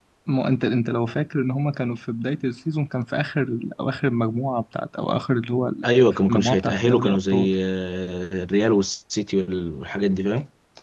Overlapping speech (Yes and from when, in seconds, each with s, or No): Yes, from 6.3 s